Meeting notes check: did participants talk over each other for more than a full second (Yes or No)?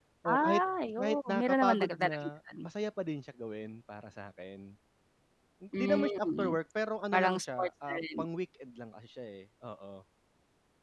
Yes